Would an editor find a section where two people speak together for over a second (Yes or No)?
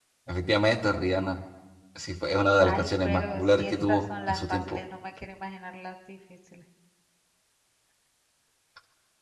Yes